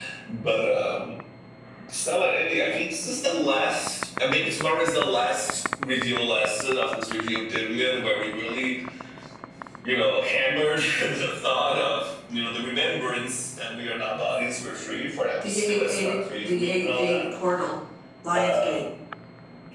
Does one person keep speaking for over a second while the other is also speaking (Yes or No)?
Yes